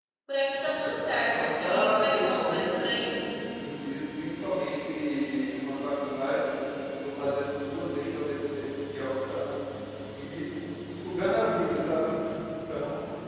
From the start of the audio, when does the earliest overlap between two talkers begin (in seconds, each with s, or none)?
1.3 s